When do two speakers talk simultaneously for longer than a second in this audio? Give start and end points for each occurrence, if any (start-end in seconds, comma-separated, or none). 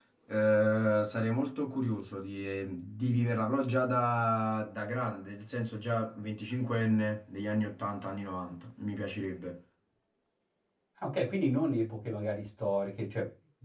none